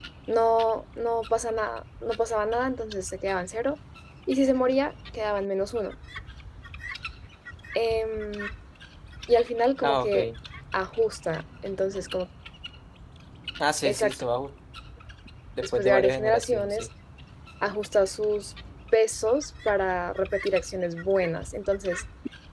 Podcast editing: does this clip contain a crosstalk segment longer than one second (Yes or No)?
Yes